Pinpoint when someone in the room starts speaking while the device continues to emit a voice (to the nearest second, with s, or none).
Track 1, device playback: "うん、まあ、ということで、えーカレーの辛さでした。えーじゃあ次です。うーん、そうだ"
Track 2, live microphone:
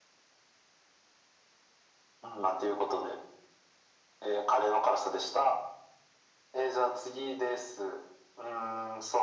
none